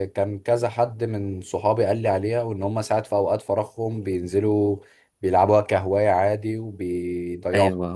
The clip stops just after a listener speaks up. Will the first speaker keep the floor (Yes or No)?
No